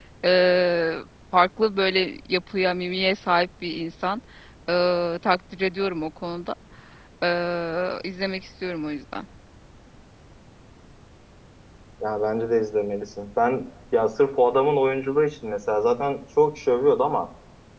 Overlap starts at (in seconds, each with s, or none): none